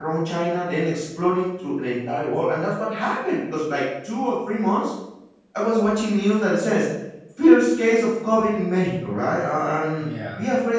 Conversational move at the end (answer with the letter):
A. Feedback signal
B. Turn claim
A